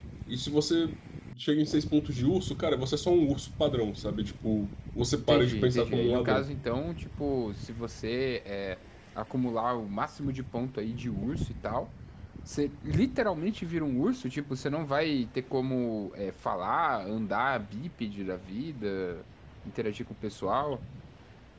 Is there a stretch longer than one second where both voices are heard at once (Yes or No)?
Yes